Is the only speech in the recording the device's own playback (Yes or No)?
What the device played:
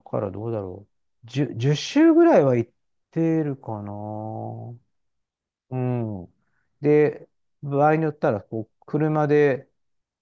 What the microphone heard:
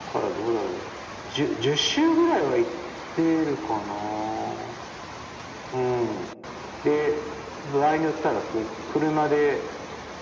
Yes